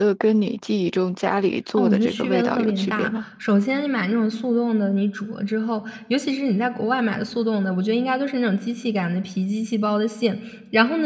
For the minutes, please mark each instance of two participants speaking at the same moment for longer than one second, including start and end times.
1.8-3.2

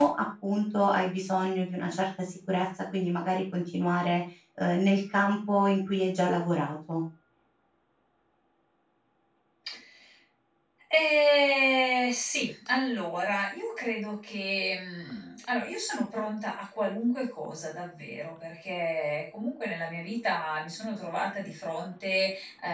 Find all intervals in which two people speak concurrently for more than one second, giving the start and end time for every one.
none

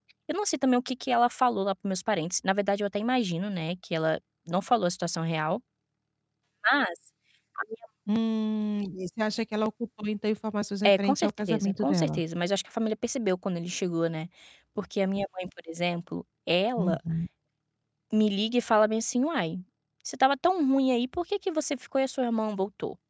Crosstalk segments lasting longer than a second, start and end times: 10.8-12.2

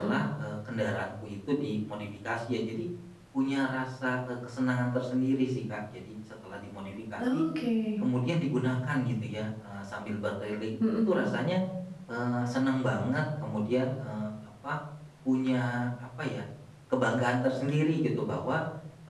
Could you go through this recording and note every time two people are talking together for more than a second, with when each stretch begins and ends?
none

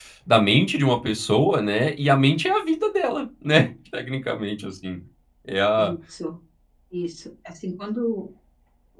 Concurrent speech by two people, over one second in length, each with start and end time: none

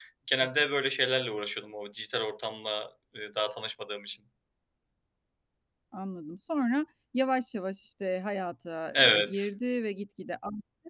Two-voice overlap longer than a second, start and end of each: none

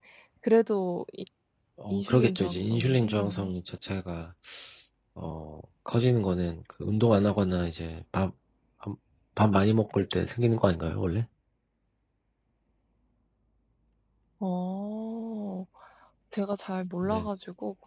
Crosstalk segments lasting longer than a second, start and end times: 1.9-3.5

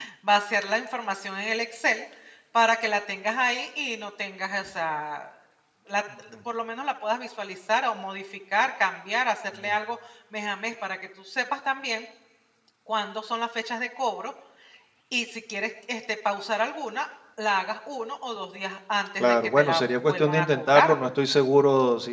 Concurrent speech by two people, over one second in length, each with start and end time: 19.2-21.0

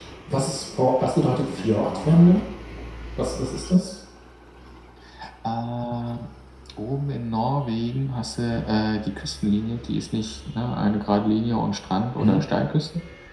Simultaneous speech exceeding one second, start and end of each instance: 1.2-2.4

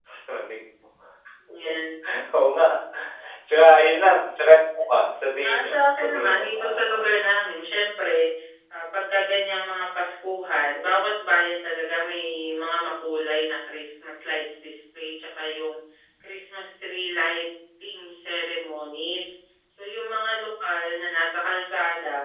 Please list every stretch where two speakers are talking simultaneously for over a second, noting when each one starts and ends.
5.4-7.2

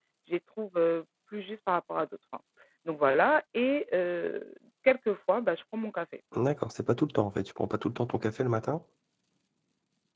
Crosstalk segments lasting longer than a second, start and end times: none

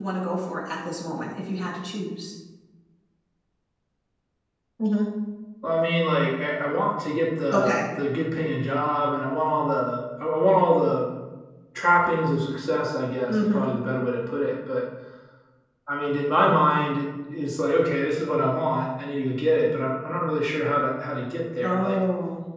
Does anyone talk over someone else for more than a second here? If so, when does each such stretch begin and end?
none

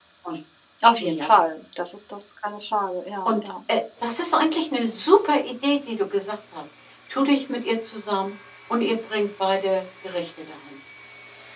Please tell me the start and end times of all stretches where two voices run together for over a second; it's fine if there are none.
none

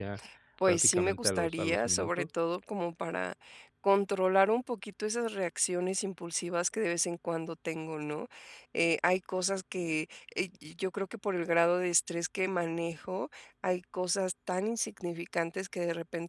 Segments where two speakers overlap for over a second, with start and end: 0.7-2.3

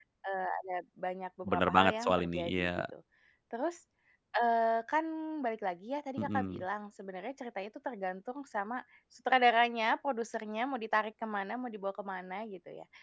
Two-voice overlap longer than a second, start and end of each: 1.4-2.7

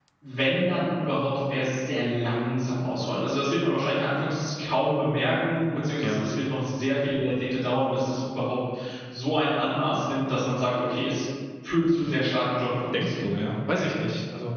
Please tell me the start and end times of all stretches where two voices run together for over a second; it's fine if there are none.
none

